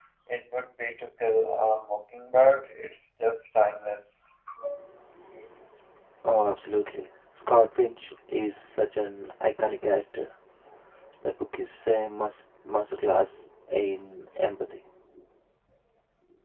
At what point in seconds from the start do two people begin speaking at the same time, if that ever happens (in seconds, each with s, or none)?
none